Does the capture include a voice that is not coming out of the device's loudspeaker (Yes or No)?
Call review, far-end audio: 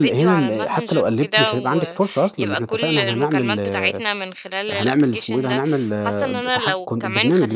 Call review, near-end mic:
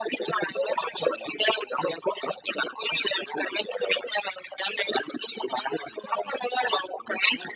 No